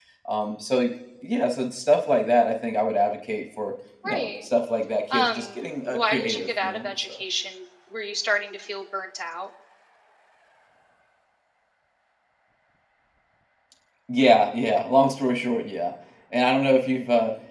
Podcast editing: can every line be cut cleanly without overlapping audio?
No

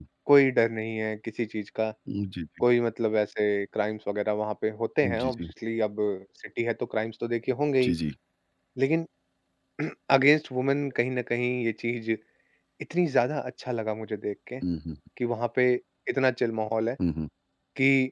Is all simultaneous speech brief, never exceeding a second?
Yes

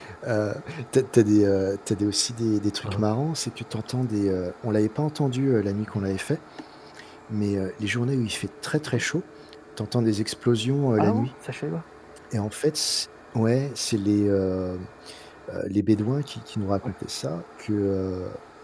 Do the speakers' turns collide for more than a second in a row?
No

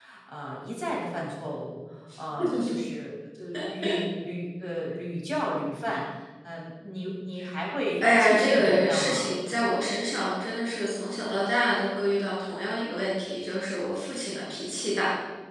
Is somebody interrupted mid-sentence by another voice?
Yes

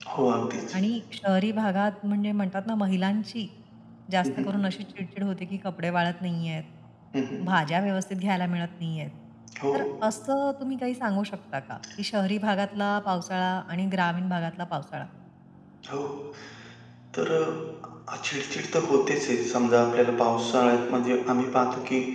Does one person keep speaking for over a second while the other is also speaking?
No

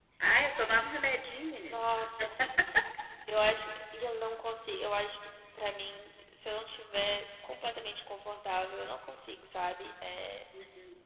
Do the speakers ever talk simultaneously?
No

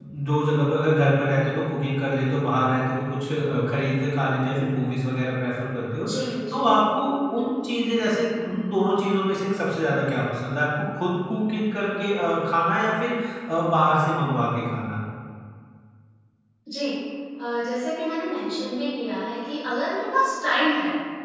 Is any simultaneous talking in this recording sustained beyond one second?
No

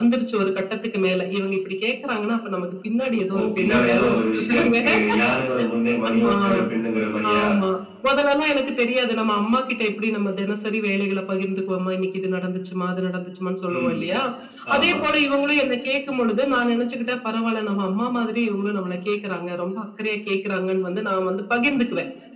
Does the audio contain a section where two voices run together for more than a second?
Yes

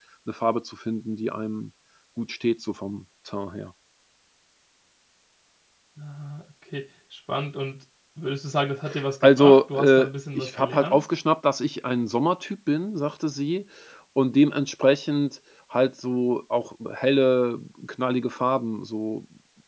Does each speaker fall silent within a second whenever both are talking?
No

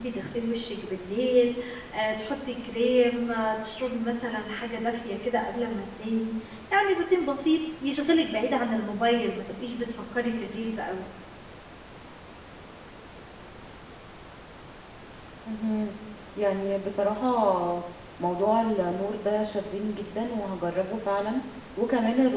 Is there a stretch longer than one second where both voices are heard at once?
No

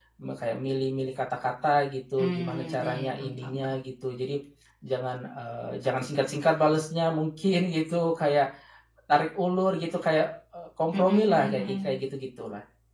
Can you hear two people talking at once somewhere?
Yes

